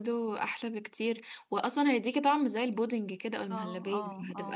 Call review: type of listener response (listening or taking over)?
taking over